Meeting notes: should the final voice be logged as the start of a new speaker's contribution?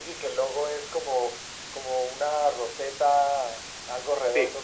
No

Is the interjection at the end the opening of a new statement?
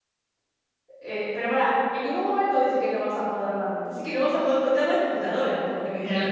Yes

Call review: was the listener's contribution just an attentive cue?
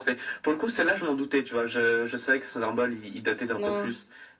Yes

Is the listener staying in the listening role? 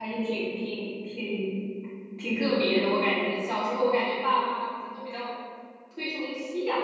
Yes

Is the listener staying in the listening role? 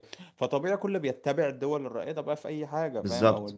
Yes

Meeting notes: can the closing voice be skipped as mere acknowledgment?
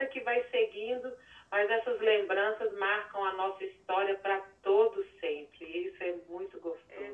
No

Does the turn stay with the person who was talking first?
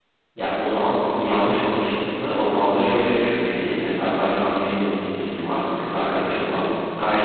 Yes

